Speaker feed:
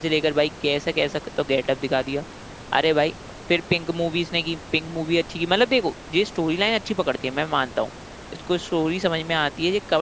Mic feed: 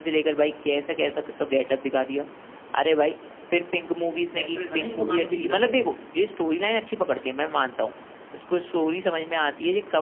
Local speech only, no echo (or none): एक्ट्रेस है ना ये तो गाने भी नहीं करती